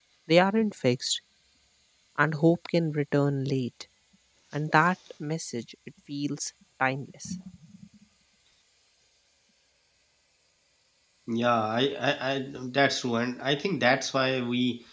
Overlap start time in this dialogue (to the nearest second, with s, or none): none